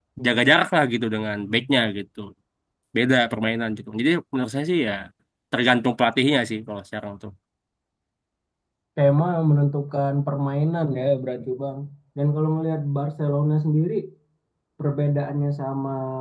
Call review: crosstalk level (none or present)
none